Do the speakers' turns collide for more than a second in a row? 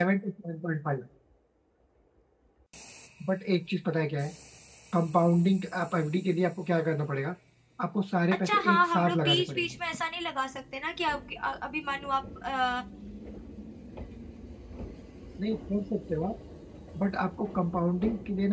Yes, from 8.4 s

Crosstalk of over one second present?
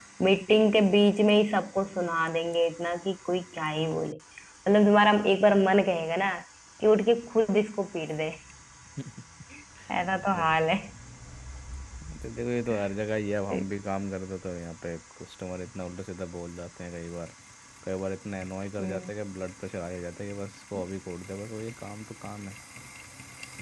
No

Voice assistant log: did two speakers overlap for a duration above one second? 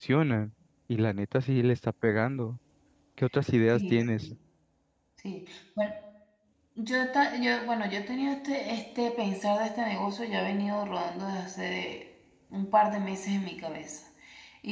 No

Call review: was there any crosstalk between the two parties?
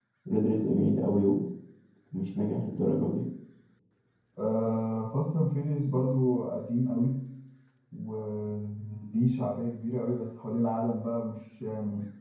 No

